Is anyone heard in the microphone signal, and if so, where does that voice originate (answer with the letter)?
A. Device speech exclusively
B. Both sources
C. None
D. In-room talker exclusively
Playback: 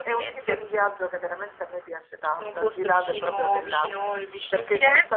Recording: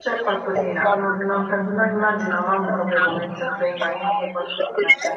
B